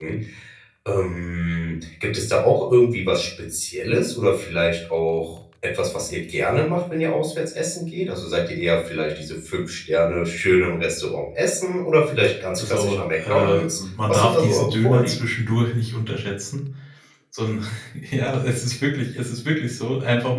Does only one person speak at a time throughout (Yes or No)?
No